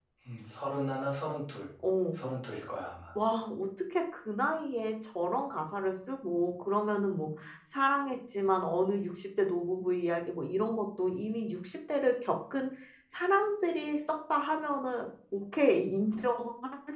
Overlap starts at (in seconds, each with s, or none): none